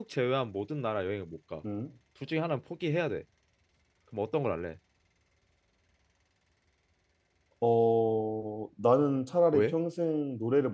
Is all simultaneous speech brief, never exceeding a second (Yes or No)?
Yes